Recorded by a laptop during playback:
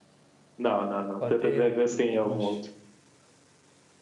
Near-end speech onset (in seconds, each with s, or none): 1.2 s